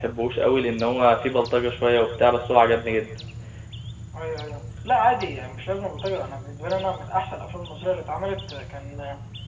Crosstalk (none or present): none